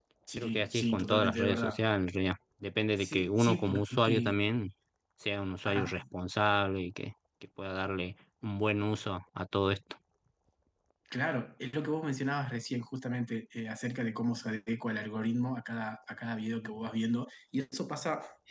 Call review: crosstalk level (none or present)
present